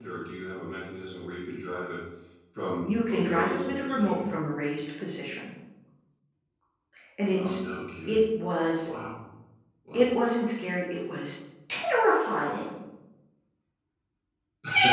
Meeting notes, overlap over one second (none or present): present